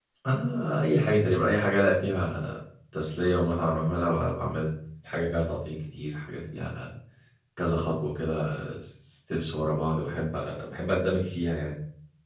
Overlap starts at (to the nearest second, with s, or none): none